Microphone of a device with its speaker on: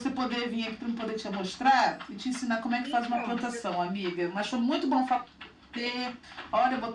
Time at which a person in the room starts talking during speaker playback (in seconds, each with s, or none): 2.8 s